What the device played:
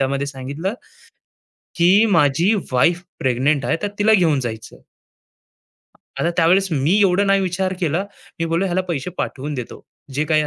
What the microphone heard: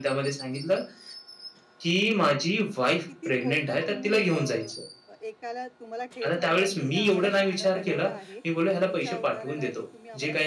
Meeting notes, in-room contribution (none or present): present